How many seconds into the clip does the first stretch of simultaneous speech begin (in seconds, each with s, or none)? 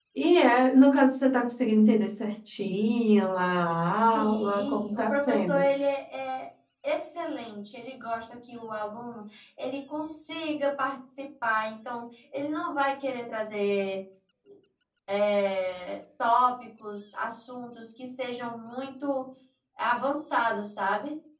4.0 s